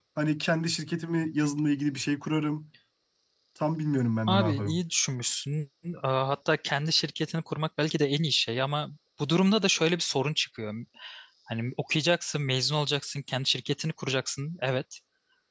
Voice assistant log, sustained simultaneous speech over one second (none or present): none